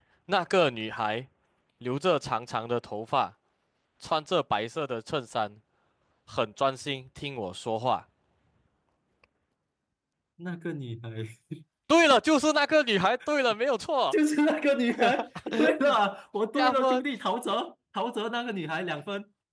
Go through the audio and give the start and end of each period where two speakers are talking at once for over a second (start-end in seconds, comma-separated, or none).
none